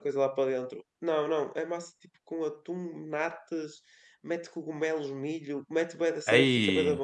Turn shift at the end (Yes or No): No